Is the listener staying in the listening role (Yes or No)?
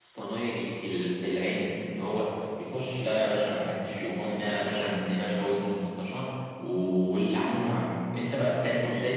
No